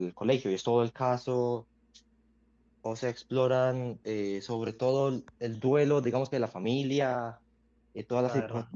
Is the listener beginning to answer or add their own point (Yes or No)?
No